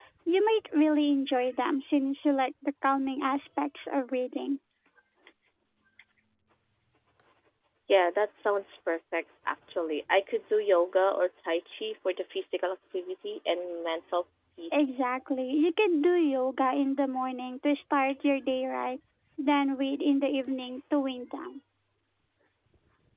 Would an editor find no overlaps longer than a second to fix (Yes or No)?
Yes